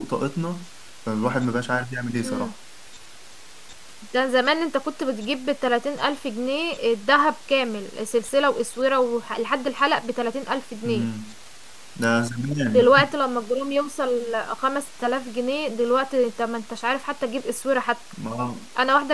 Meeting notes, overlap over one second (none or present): none